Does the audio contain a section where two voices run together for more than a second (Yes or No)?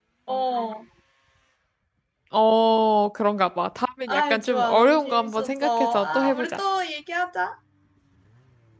Yes